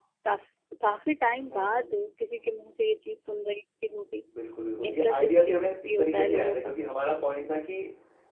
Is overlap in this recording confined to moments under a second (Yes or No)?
No